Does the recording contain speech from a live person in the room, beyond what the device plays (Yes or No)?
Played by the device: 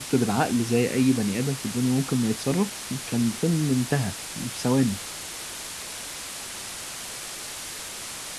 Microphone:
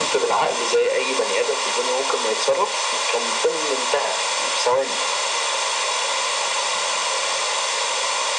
No